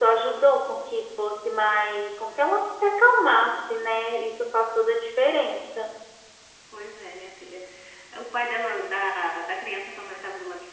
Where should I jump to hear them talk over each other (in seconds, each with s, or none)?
none